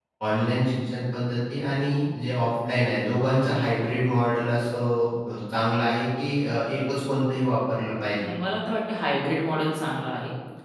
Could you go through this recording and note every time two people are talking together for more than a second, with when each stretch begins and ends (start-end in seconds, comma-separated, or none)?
none